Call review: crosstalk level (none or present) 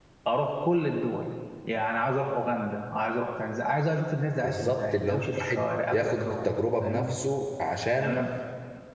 present